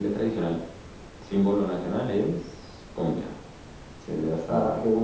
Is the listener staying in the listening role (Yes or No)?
No